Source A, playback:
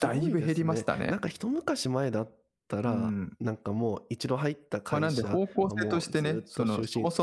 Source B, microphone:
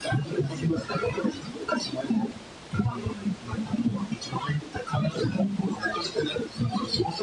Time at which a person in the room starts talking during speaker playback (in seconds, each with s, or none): 0.4 s